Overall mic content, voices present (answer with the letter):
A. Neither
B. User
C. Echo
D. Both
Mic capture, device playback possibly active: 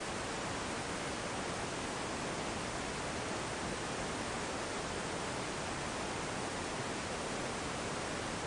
A